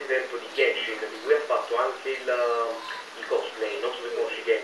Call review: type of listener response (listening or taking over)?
taking over